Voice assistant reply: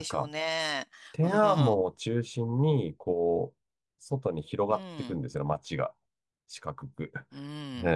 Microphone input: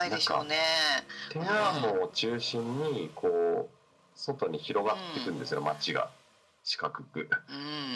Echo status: present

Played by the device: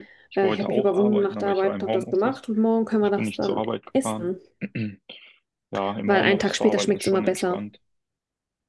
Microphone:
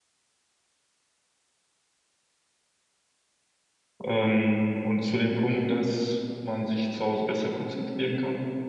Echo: none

